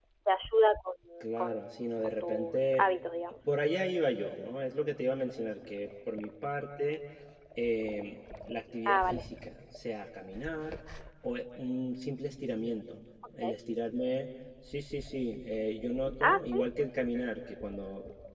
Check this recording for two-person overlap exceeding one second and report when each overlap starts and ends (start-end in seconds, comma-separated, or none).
1.4-2.8